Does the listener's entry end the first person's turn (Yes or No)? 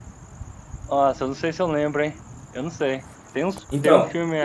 No